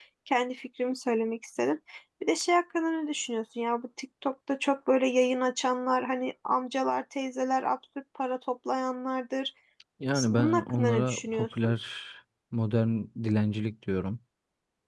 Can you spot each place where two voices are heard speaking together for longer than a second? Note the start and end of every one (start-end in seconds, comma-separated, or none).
10.3-11.7